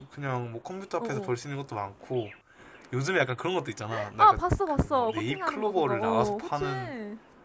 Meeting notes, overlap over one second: present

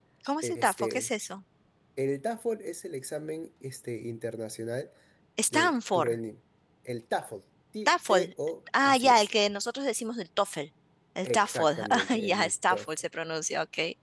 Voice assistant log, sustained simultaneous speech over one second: present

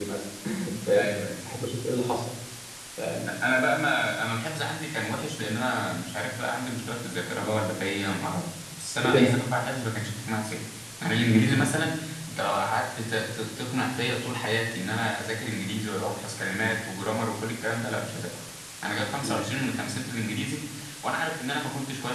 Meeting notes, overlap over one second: none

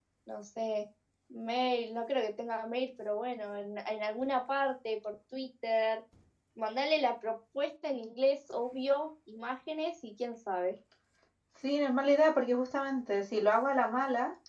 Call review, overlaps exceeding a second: none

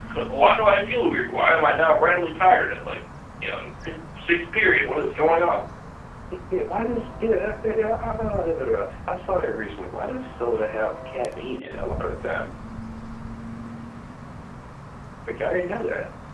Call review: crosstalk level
none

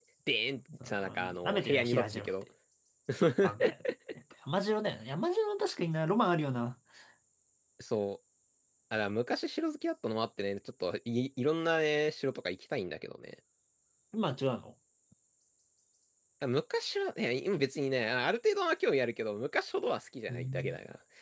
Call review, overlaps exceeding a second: present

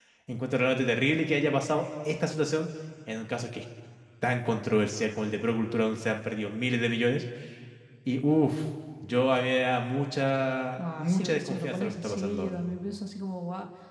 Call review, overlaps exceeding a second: present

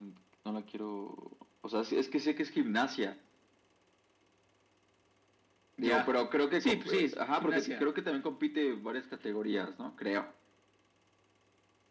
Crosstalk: present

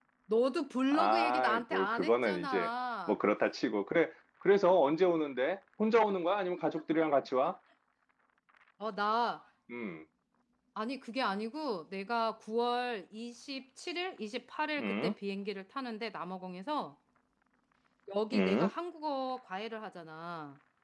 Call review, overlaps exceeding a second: present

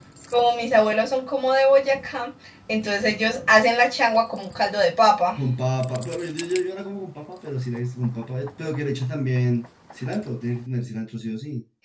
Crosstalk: none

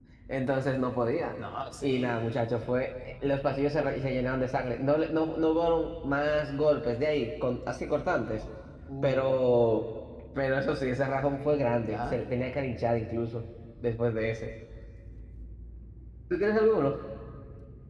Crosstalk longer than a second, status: none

